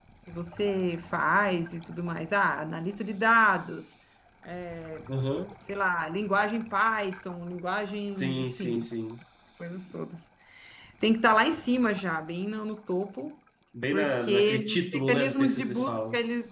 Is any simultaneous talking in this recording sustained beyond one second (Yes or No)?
Yes